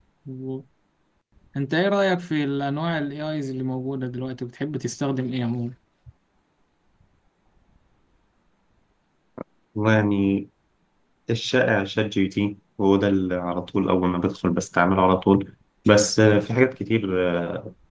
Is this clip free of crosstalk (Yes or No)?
Yes